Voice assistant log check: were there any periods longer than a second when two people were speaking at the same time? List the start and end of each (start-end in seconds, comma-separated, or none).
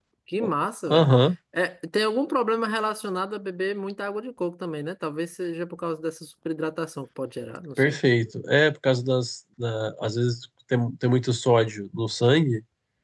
none